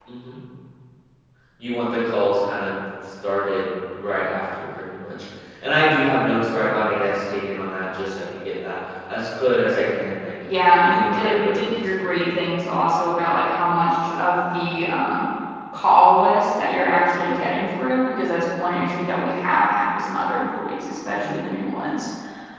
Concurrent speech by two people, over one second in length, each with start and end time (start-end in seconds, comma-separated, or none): 10.9-12.2